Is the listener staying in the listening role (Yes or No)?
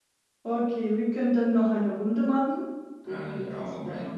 No